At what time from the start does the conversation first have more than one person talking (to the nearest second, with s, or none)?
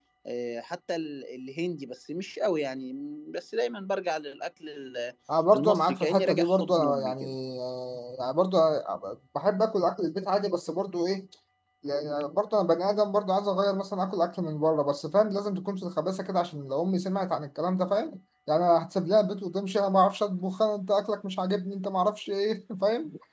6 s